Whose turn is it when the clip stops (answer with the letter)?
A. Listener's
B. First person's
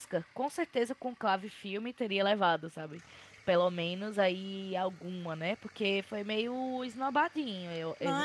A